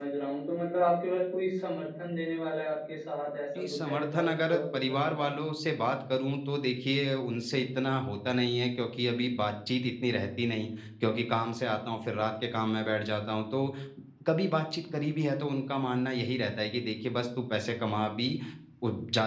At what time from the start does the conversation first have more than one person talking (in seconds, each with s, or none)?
3.6 s